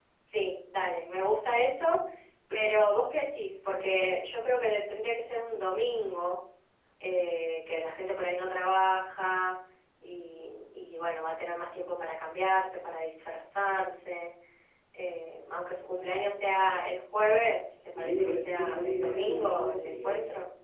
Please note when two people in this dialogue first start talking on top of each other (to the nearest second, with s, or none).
18 s